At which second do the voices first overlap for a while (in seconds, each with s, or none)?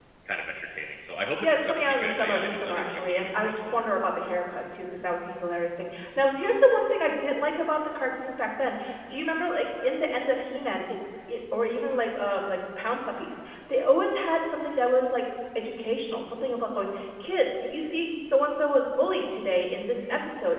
1.4 s